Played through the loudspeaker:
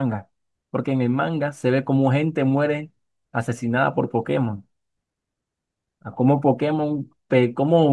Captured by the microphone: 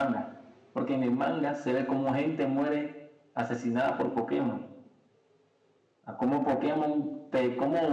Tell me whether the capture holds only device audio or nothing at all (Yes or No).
Yes